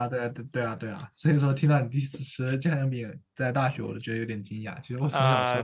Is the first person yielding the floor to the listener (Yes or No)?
Yes